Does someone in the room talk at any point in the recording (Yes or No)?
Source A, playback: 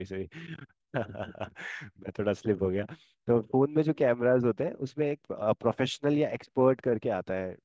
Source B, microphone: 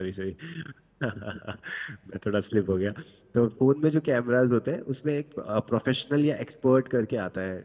No